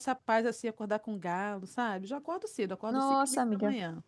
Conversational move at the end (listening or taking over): listening